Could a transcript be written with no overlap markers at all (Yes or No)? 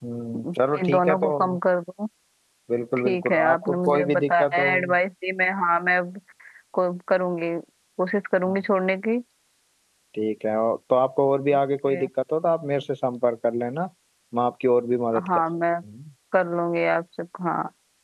No